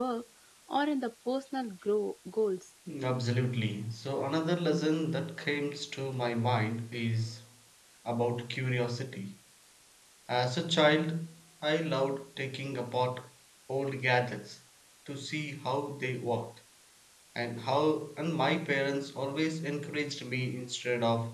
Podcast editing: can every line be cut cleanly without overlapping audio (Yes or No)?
Yes